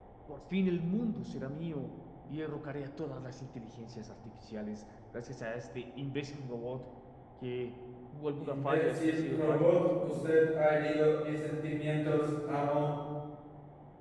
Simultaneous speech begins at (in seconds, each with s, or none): 8.4 s